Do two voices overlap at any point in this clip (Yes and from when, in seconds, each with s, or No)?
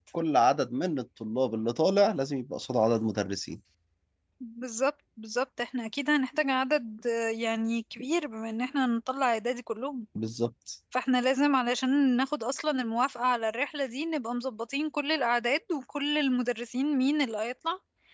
No